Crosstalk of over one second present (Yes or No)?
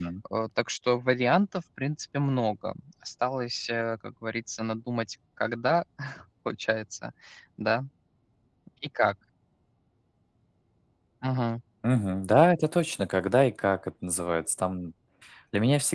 No